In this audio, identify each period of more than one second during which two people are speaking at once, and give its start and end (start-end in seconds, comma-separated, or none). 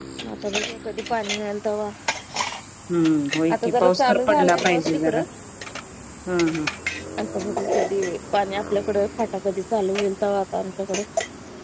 3.5-5.2